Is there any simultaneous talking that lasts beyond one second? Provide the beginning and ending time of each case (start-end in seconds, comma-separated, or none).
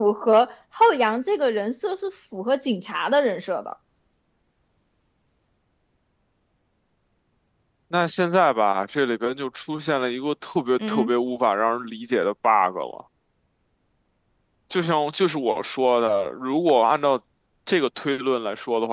none